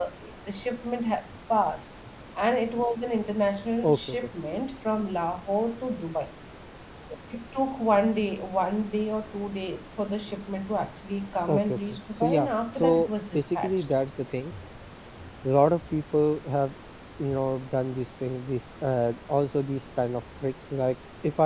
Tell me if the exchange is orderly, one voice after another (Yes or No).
No